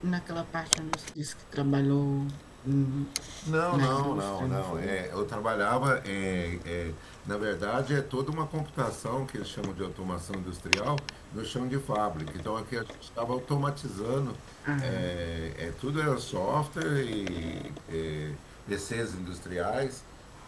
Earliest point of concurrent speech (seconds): 3.7 s

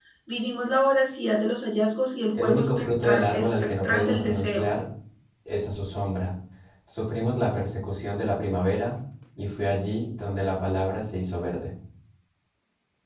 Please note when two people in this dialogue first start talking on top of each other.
2.3 s

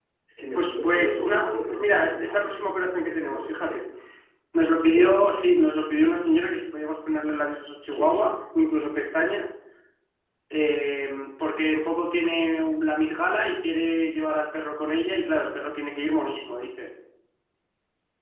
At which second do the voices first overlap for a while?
0.5 s

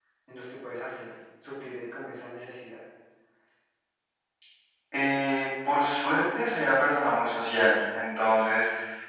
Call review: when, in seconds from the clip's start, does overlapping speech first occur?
none

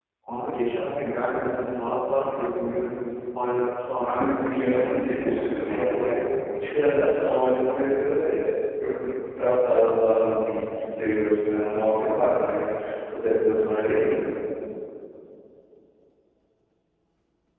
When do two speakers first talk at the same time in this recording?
4.0 s

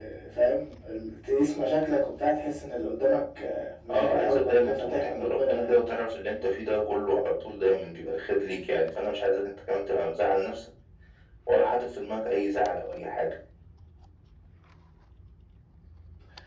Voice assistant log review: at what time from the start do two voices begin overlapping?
3.9 s

